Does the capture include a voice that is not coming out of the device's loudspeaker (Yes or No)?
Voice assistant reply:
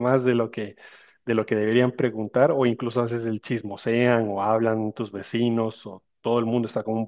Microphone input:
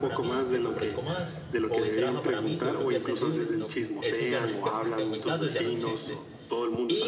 Yes